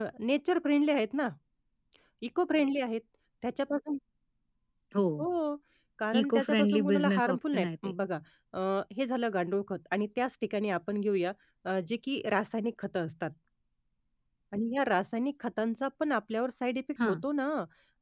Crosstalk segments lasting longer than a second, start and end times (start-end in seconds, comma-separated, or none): 6.2-8.0